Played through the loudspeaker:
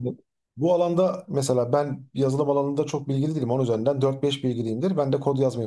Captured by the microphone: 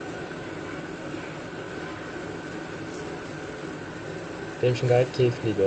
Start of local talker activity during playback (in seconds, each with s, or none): 4.6 s